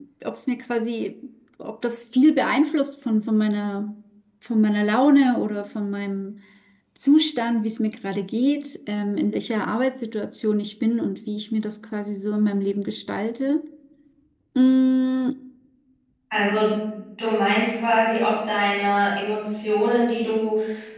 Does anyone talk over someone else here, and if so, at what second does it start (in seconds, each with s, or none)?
none